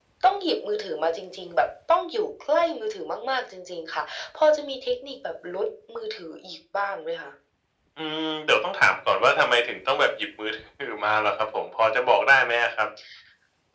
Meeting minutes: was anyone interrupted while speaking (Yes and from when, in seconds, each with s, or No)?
No